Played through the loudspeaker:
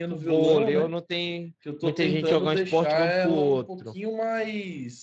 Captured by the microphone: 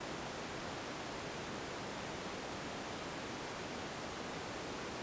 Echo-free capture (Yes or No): Yes